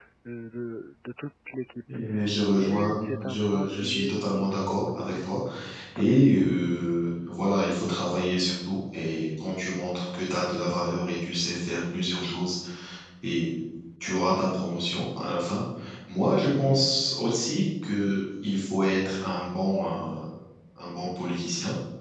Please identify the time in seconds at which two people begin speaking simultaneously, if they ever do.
2.5 s

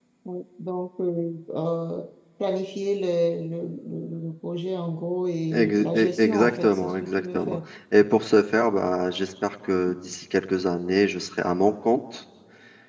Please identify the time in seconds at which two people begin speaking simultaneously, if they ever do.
5.5 s

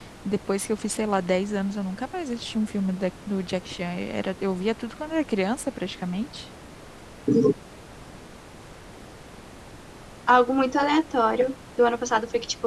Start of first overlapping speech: none

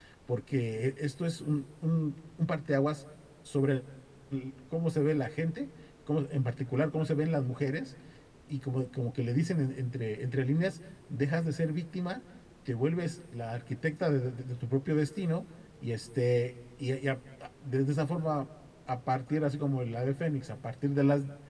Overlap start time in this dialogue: none

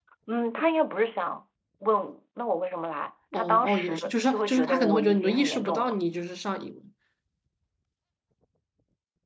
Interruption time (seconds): 3.3 s

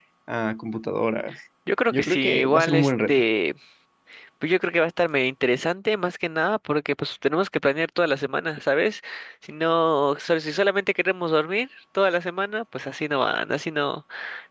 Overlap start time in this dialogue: 1.9 s

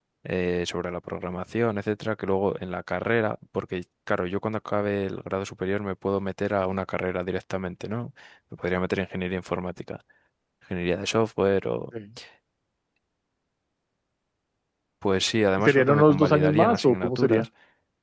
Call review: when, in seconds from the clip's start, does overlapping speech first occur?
15.6 s

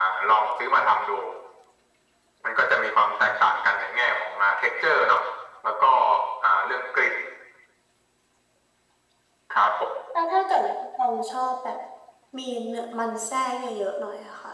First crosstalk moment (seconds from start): none

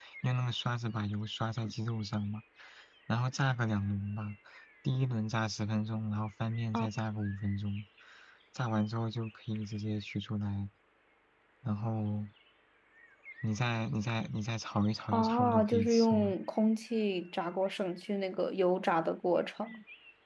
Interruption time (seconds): 15.1 s

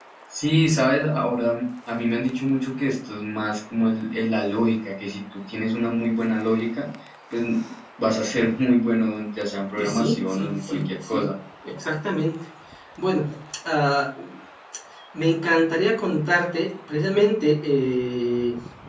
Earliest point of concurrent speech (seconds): 9.8 s

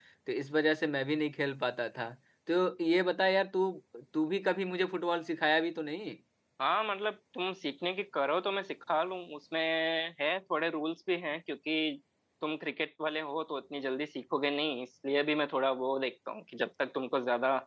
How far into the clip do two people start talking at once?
none

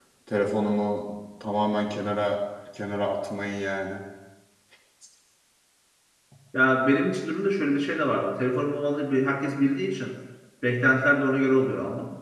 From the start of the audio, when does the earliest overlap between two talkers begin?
none

